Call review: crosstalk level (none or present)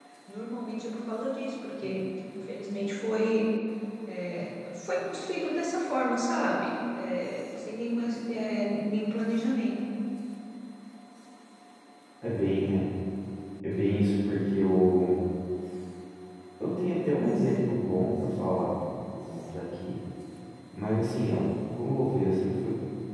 none